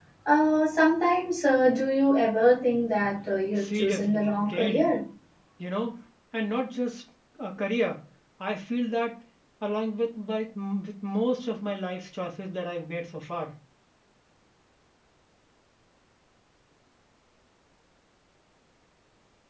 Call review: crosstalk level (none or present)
present